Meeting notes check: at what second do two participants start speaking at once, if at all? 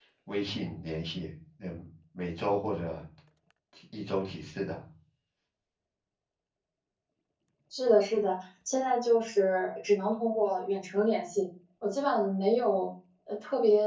none

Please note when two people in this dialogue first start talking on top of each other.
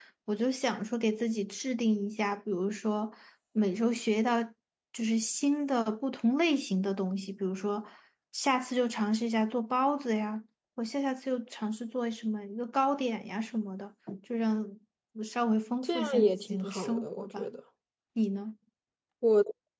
15.8 s

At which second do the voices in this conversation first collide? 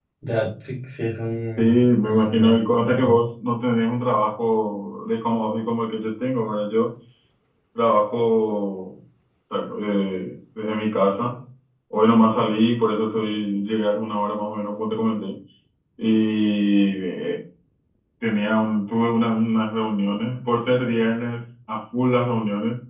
1.6 s

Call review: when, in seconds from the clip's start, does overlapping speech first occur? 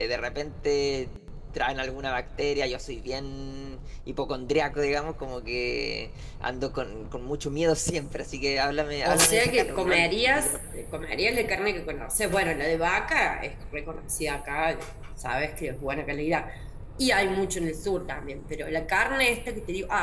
9.0 s

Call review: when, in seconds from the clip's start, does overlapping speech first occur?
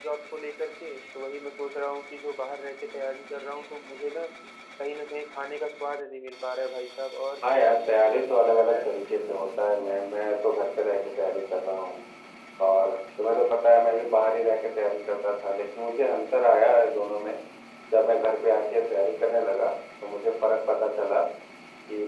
7.4 s

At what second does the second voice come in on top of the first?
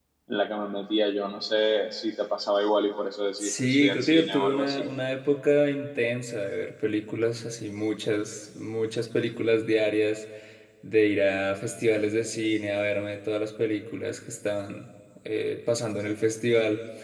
3.4 s

